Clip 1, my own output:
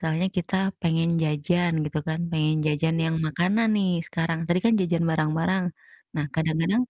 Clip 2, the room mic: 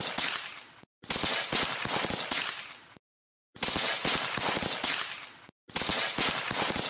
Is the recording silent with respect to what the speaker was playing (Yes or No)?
Yes